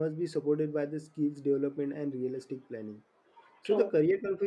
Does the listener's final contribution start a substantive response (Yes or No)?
No